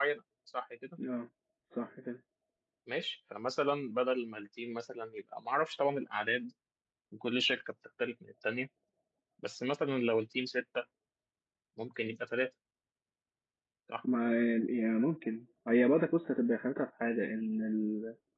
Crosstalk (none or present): none